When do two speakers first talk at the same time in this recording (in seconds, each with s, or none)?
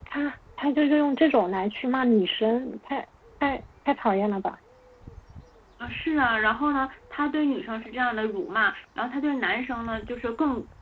none